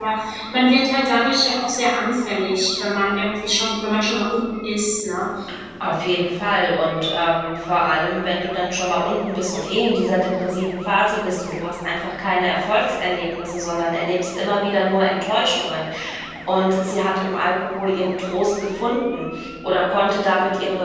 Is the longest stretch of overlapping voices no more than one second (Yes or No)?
Yes